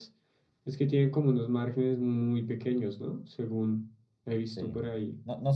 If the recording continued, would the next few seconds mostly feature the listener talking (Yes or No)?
Yes